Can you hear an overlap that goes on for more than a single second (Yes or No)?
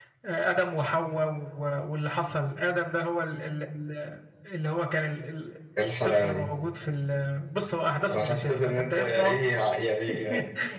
Yes